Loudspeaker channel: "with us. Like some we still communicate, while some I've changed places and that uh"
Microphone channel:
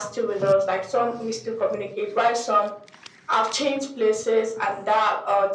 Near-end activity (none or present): none